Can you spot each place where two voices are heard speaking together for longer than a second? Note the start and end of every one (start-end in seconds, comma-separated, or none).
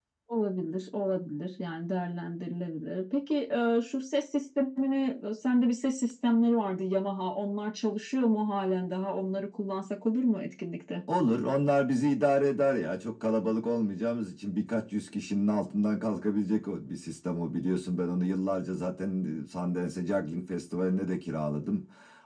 none